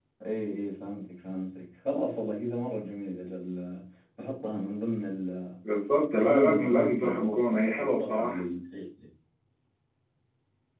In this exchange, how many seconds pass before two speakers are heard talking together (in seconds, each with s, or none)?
6.1 s